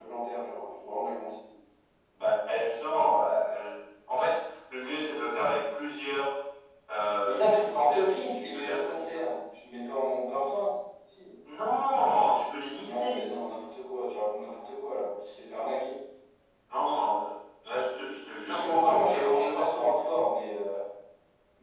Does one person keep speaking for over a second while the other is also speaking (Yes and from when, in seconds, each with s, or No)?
Yes, from 7.2 s